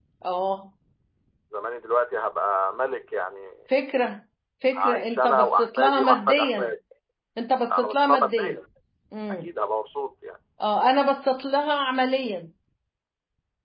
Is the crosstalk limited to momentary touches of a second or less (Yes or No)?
No